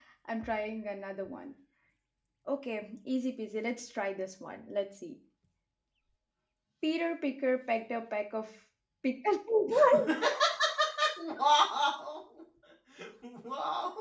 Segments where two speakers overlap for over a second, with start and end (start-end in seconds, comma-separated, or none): none